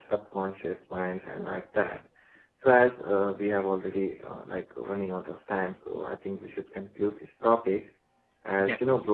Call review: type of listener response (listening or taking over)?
listening